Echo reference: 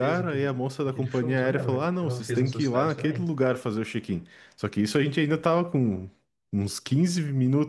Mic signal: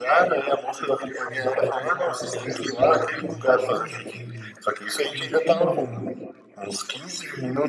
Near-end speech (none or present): present